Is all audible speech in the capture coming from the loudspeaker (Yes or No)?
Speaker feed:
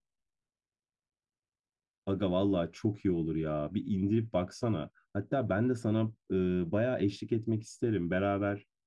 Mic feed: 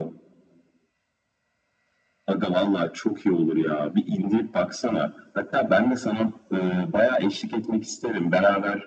Yes